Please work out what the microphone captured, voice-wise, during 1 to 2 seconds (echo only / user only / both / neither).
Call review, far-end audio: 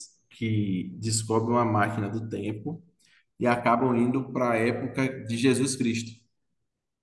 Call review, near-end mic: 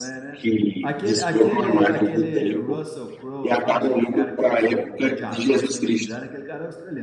both